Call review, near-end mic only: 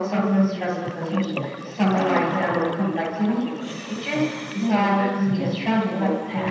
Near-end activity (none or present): none